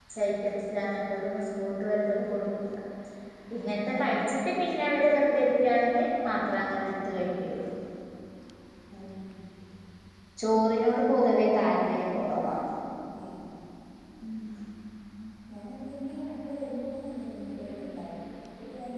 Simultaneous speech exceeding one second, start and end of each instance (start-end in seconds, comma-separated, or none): none